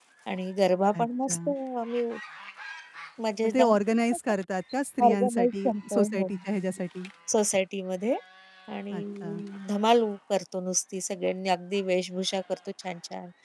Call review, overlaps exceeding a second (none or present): present